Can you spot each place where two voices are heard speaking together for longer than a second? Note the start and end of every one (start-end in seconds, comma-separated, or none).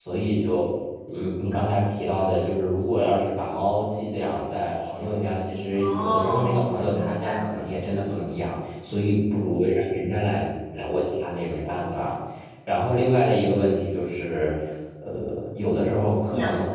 5.7-7.4